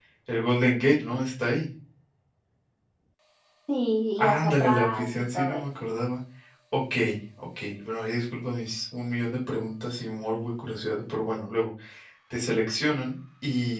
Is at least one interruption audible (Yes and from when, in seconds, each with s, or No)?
Yes, from 4.2 s